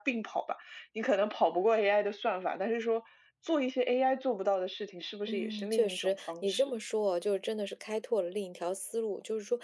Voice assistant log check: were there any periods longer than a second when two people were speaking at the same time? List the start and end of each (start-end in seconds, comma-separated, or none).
5.3-6.7